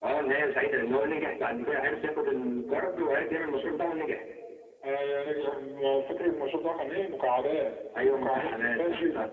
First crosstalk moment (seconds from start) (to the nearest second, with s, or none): 8 s